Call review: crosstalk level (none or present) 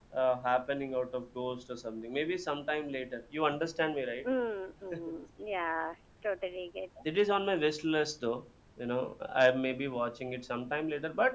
none